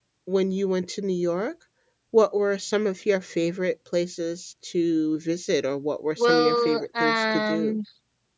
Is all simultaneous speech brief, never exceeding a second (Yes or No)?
No